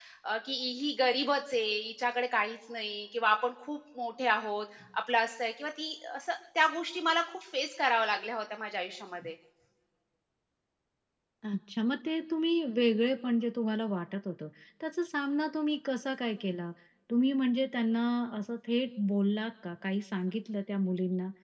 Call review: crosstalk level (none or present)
none